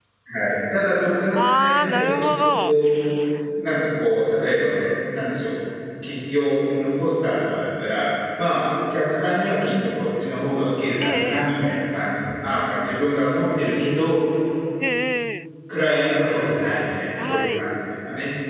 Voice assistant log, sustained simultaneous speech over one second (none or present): present